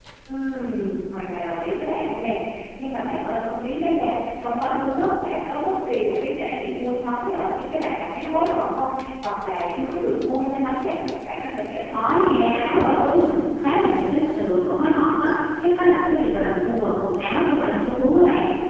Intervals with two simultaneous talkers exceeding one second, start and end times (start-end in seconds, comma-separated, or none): 11.9-13.2